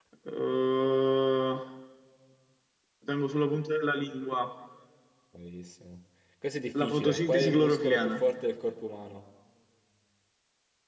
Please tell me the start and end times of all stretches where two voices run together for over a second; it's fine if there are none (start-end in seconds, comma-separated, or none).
6.8-8.2